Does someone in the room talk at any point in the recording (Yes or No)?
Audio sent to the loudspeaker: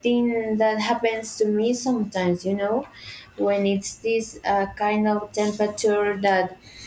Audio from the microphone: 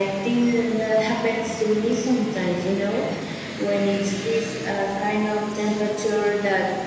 No